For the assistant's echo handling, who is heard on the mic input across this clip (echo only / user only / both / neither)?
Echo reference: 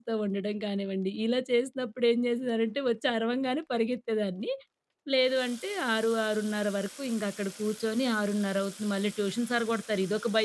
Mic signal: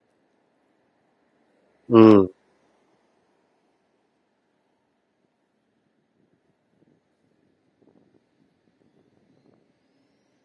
user only